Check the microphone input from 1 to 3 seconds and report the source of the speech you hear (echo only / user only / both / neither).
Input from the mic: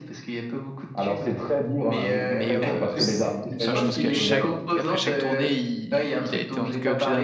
both